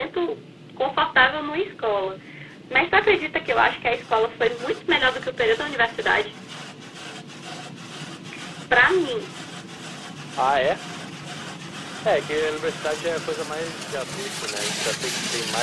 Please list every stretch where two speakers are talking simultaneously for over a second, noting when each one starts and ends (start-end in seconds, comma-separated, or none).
none